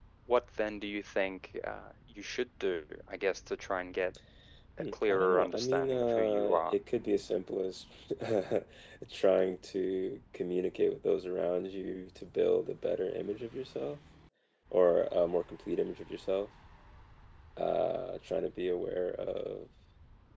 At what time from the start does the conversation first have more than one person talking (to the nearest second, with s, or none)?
5 s